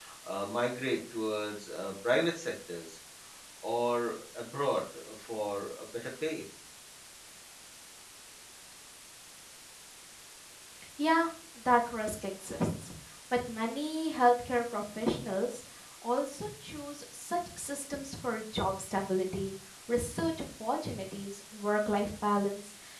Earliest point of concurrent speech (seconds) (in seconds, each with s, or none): none